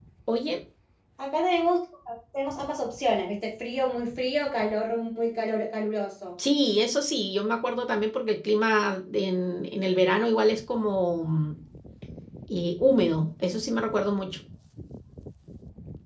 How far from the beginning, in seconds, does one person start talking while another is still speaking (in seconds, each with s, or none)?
none